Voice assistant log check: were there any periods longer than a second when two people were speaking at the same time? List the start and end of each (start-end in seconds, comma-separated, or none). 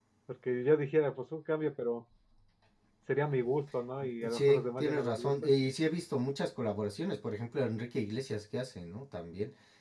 4.3-5.5